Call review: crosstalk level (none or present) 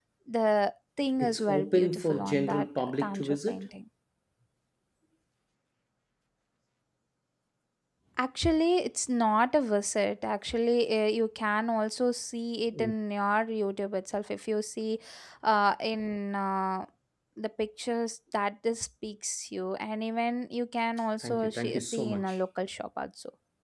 present